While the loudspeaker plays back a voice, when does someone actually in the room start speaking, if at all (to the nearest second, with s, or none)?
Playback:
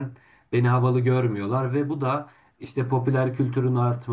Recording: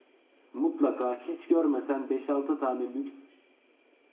1 s